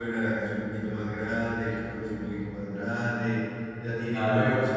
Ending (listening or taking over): listening